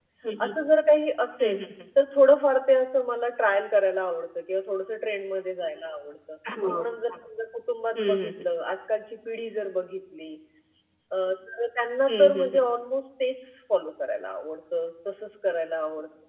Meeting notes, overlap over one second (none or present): none